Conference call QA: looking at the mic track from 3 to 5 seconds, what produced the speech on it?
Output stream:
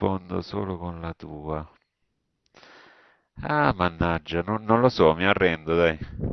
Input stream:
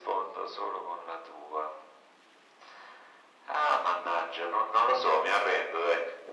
echo only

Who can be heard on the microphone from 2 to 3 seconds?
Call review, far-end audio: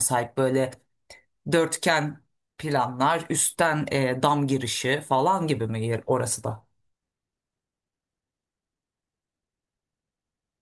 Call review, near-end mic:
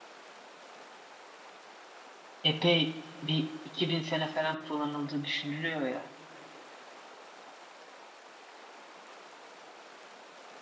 user only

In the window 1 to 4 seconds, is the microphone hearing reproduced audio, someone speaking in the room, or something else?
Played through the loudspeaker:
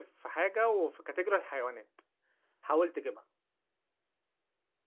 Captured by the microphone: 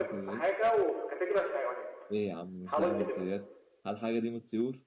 both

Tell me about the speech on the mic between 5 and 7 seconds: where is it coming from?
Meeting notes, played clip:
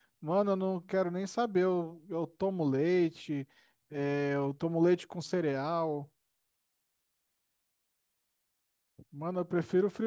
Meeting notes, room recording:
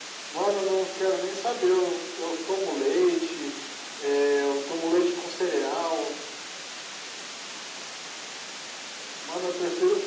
echo only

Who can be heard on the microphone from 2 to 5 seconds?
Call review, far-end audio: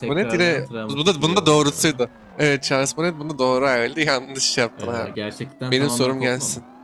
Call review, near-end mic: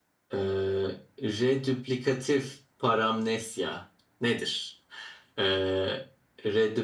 user only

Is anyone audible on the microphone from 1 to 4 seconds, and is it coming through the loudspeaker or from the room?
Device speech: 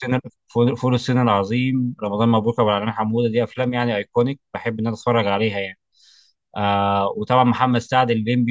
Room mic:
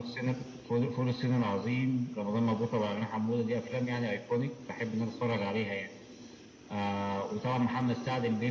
echo only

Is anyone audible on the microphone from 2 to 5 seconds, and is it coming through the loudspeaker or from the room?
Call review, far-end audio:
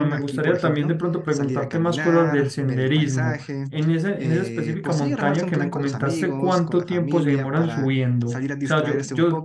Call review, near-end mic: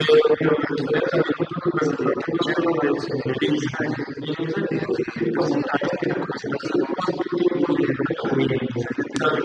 echo only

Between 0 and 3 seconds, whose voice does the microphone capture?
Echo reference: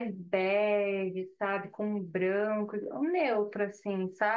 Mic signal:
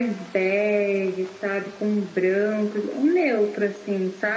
echo only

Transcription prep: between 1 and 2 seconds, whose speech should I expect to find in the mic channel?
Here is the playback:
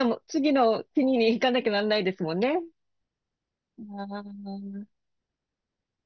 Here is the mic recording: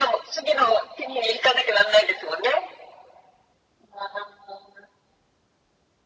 echo only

